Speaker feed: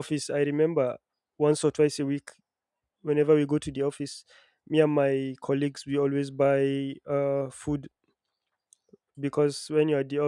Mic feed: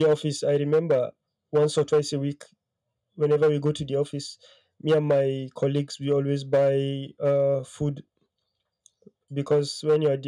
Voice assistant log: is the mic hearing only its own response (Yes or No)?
Yes